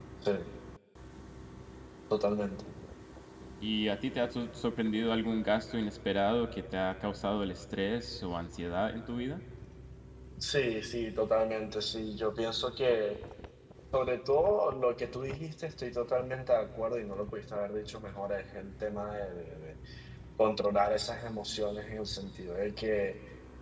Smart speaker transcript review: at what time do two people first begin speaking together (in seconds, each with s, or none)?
none